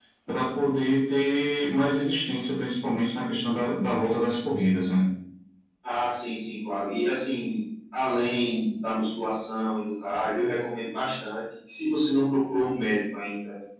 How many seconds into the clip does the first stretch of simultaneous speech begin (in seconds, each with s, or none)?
none